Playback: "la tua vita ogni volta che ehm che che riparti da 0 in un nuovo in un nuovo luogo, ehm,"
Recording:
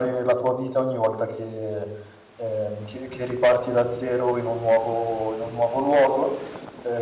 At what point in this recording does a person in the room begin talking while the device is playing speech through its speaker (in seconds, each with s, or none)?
none